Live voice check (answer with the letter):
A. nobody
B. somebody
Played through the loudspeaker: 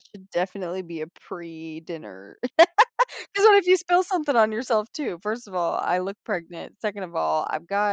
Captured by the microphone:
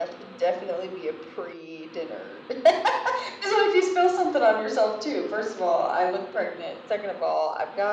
A